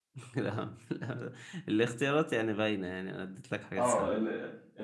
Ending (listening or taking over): taking over